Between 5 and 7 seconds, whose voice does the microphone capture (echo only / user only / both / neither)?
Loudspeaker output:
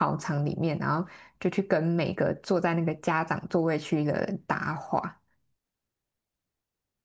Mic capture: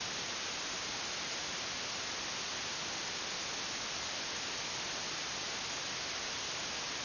neither